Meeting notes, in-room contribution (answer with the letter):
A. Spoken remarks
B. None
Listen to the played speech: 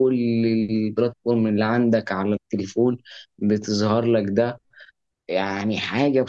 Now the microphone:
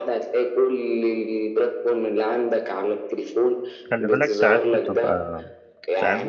A